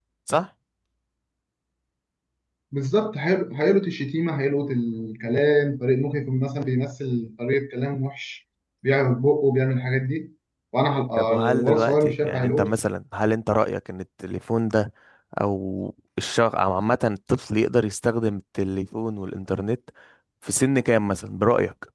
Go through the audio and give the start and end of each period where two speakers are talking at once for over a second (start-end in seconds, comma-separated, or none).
11.2-12.7